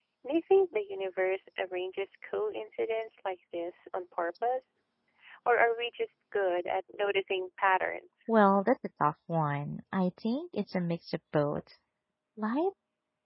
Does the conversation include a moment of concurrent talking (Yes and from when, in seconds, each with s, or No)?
No